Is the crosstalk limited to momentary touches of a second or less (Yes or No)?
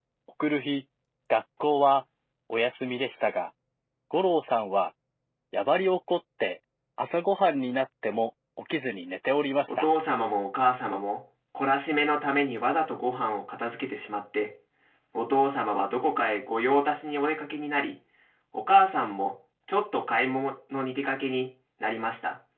Yes